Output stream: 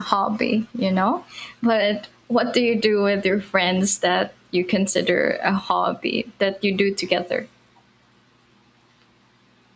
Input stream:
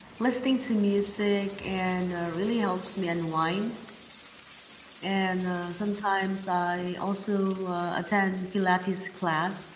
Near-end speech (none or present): present